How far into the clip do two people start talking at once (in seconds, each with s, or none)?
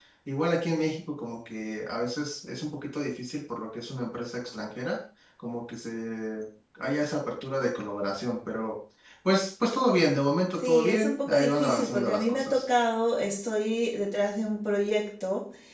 10.6 s